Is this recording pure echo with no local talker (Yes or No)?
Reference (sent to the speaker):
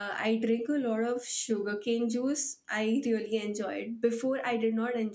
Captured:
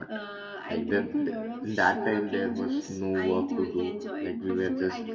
No